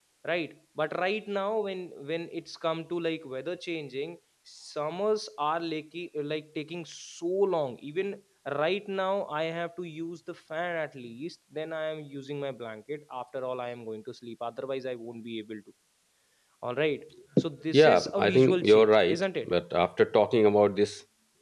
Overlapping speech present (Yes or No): Yes